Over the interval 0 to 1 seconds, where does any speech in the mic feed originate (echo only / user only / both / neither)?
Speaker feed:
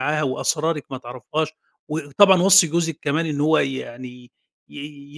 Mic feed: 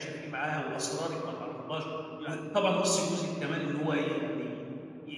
echo only